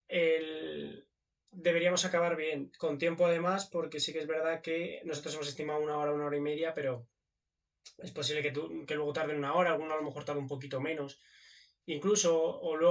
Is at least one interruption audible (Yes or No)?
No